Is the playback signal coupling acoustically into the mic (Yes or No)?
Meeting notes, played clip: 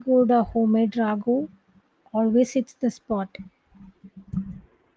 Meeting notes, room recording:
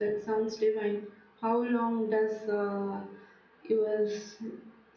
No